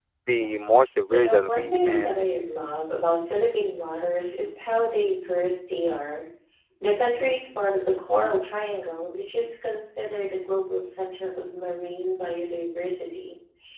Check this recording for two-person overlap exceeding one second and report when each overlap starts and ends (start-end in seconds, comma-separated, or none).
1.1-2.3